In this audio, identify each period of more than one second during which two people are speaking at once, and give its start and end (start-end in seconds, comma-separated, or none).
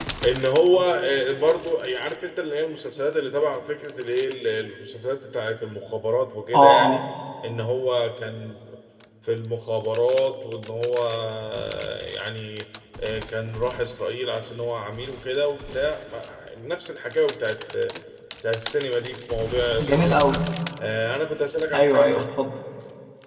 none